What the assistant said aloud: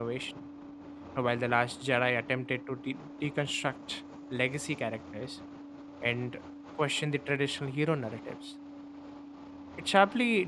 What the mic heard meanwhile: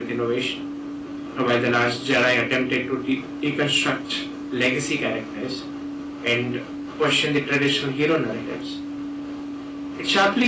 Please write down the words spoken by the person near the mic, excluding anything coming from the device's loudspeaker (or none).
none